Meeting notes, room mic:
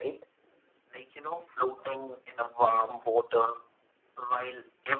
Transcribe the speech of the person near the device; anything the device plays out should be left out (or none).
none